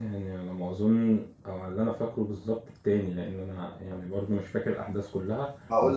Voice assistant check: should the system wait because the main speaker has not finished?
No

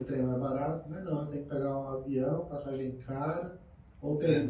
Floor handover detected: No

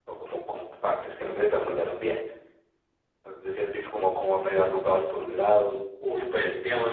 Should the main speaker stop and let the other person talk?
Yes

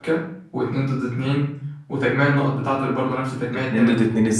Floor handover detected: Yes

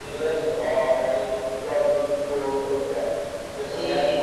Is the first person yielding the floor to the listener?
No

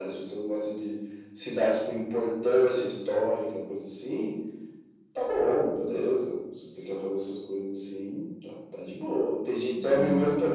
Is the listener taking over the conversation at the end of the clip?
No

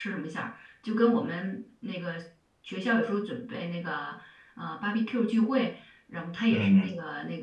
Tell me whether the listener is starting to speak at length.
No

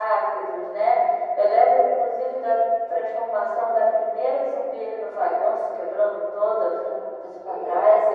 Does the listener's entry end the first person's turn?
Yes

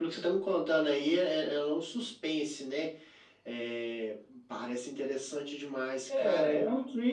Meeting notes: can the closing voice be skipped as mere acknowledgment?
No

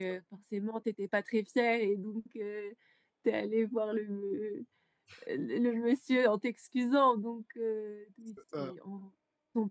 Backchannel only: Yes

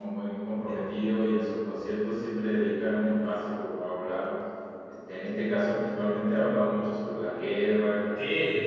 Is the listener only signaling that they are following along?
No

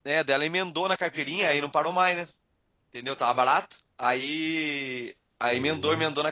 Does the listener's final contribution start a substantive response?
No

